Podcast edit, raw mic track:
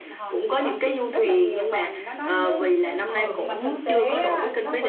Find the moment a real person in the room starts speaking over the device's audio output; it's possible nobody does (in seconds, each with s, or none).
3.1 s